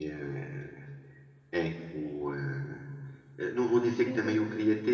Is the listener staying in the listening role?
Yes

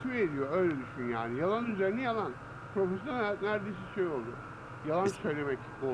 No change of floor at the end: Yes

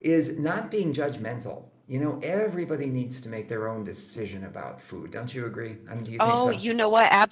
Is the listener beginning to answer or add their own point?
Yes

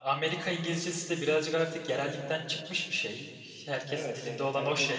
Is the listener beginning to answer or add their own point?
Yes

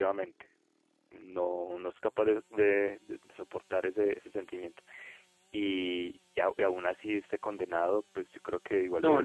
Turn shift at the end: Yes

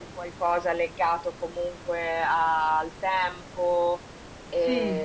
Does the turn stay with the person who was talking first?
Yes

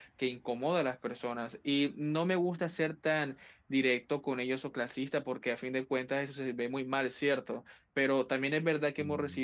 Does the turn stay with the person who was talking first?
Yes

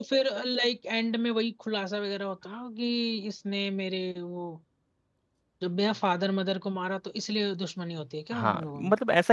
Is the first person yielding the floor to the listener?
Yes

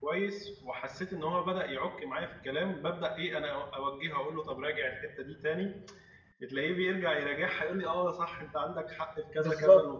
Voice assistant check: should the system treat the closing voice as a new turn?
Yes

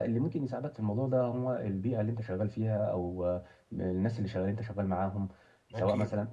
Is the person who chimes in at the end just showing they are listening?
Yes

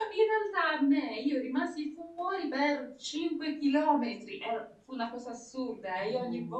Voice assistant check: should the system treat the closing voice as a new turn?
No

